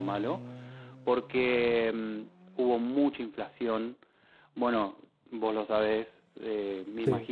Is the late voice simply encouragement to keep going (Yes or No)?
Yes